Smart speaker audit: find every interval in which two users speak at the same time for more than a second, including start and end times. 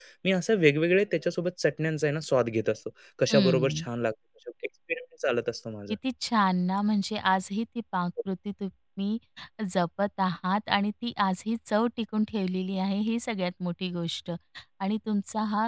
none

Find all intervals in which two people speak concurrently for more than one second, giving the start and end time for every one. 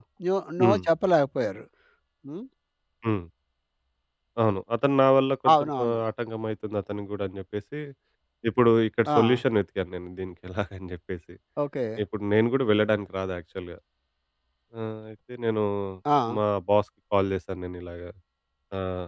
none

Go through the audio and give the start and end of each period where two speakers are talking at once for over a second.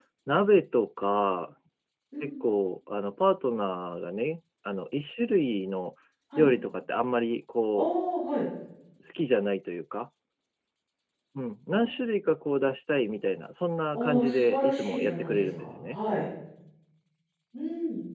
13.9-16.0

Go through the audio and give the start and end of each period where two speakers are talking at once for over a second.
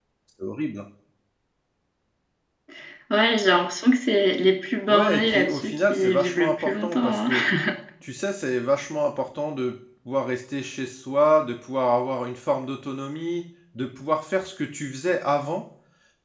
4.9-7.2

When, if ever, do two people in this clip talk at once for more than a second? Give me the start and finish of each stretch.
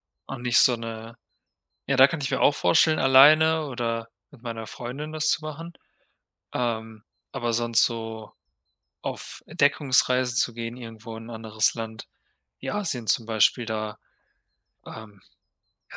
none

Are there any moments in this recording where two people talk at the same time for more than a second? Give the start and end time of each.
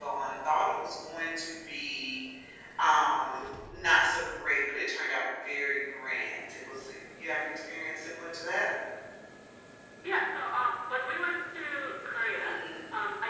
none

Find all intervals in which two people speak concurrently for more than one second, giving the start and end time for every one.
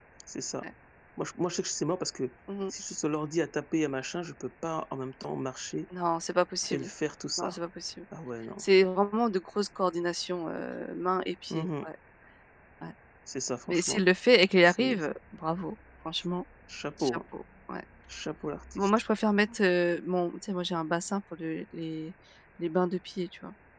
none

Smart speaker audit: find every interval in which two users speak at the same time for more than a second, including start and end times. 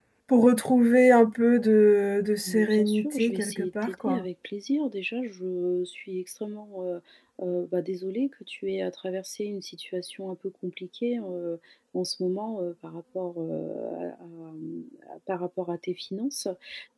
2.5-4.2

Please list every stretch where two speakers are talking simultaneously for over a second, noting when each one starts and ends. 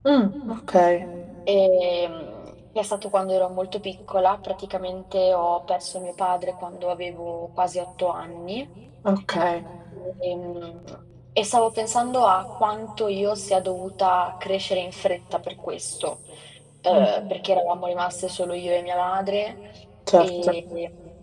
none

